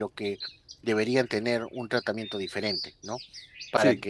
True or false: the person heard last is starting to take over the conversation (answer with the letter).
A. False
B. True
A